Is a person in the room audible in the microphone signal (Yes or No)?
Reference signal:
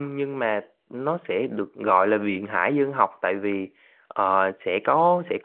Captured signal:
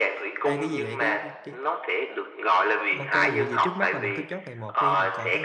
Yes